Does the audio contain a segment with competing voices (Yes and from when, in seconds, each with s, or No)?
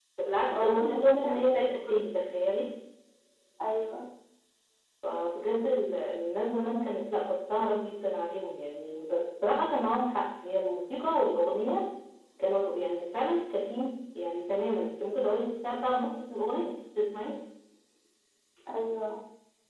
Yes, from 0.6 s